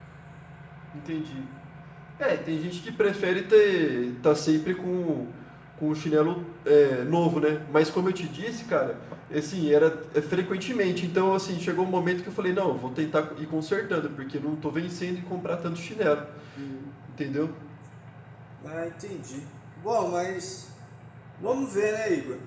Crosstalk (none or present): none